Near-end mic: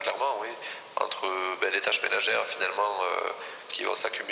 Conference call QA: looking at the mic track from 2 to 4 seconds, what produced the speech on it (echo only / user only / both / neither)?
echo only